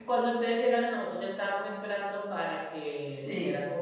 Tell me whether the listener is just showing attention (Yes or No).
Yes